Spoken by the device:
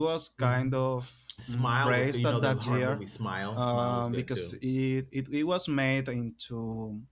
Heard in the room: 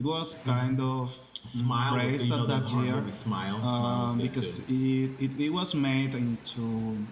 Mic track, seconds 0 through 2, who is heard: echo only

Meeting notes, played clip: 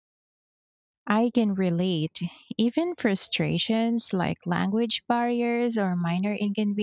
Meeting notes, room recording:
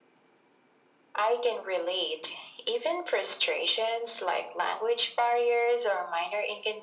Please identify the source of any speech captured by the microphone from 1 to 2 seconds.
echo only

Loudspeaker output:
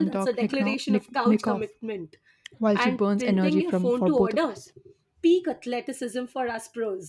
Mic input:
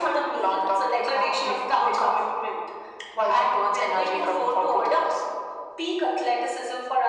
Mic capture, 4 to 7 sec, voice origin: echo only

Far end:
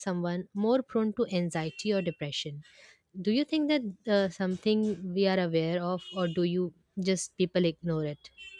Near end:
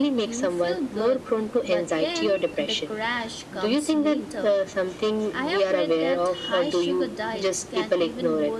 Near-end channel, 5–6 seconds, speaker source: both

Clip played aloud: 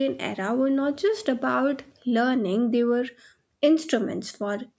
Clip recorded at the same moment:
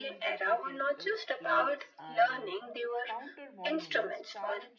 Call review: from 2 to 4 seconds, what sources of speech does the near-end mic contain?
both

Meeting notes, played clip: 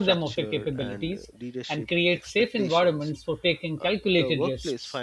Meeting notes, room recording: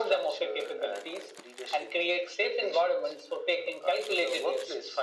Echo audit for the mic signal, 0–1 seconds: echo only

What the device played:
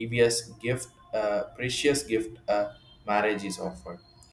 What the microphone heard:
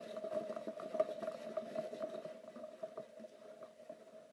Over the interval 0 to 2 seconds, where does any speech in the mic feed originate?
neither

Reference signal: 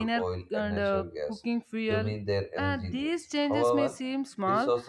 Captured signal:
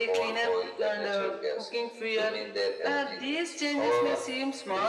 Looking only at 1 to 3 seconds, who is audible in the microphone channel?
echo only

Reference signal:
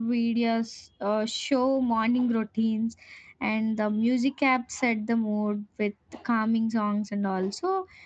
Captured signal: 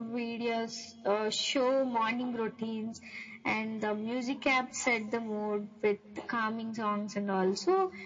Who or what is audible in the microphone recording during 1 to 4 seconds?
echo only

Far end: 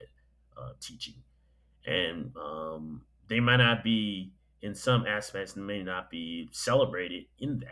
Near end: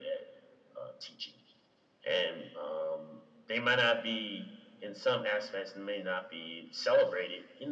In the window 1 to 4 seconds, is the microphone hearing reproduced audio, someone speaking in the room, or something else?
echo only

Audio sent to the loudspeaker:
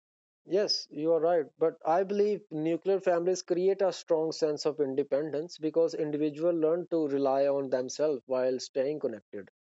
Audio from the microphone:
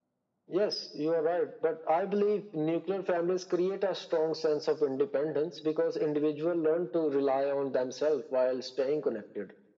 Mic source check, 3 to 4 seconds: echo only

